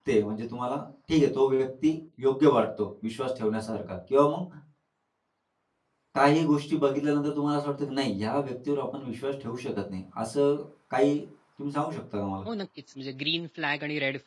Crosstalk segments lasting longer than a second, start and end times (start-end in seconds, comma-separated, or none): none